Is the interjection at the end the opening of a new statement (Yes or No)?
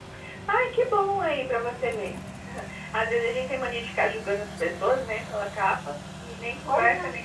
No